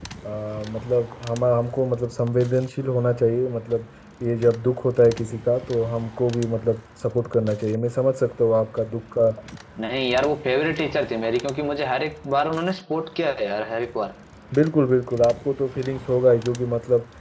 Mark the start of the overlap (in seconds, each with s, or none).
none